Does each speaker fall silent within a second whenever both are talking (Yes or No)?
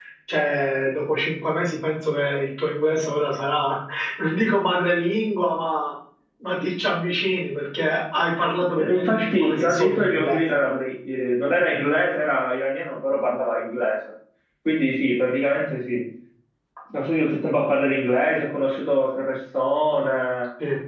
No